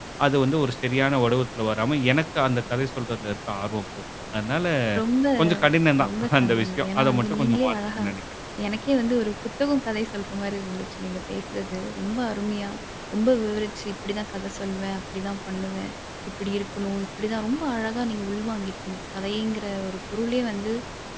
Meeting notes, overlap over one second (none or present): present